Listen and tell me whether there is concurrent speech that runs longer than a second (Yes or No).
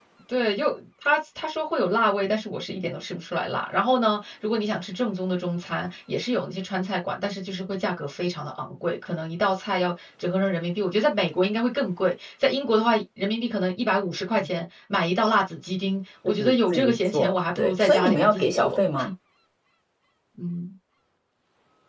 Yes